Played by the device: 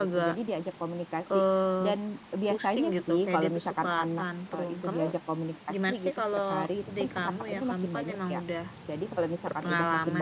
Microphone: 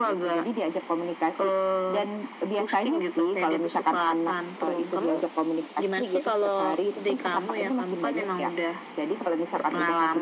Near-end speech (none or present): none